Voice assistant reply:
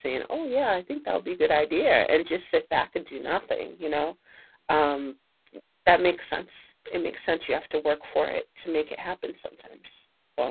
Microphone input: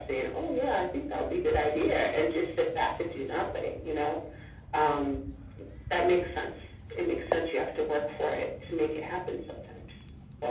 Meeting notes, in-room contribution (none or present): none